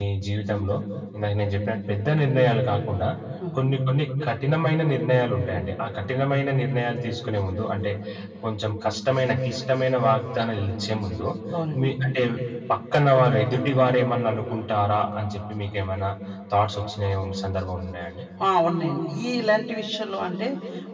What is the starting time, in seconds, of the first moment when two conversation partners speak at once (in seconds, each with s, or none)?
none